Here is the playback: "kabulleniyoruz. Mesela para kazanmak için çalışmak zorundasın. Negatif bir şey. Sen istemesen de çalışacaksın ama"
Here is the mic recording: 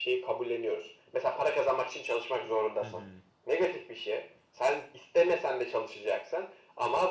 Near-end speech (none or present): present